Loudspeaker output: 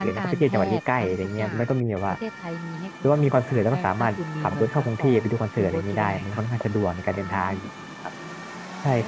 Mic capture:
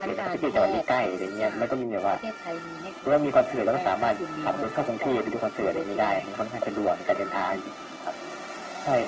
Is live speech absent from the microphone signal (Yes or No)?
Yes